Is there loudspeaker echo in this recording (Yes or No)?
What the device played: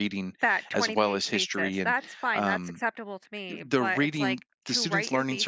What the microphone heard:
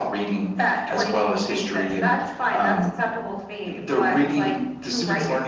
Yes